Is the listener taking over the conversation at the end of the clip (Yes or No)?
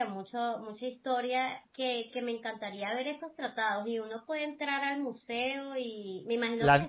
No